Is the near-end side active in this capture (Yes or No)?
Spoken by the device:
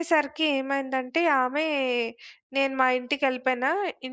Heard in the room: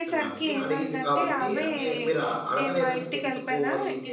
Yes